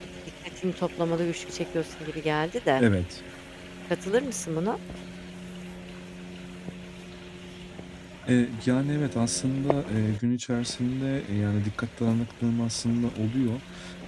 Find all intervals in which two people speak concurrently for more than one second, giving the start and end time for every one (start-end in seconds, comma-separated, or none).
none